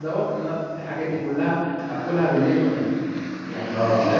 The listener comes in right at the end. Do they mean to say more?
Yes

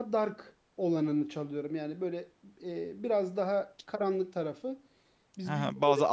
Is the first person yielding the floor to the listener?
Yes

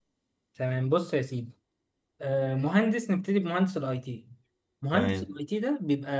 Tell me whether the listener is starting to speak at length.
No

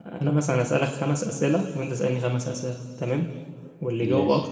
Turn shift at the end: No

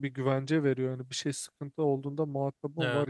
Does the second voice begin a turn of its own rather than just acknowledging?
Yes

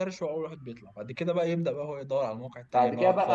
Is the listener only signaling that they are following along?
No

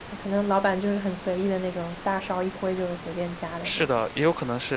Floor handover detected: Yes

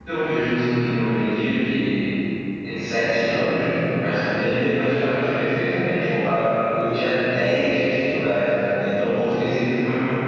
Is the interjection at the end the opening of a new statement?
No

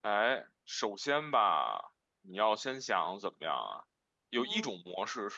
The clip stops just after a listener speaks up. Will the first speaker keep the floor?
Yes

